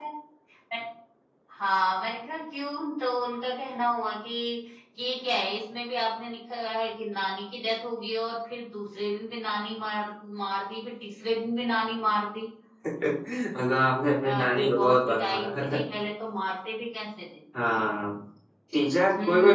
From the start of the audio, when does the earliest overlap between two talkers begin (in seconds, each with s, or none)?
14.2 s